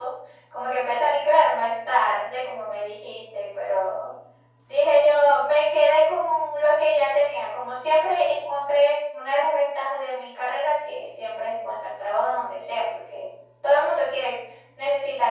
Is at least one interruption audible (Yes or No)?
No